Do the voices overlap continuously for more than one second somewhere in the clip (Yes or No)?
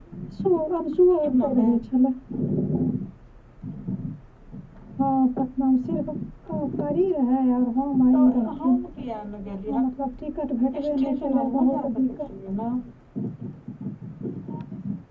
Yes